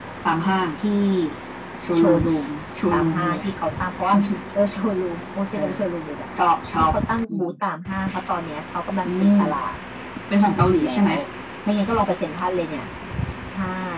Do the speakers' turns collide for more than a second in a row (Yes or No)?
No